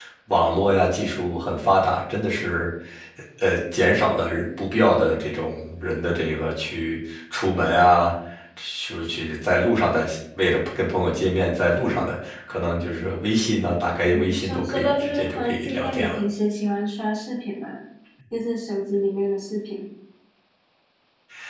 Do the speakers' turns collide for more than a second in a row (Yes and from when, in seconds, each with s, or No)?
Yes, from 14.1 s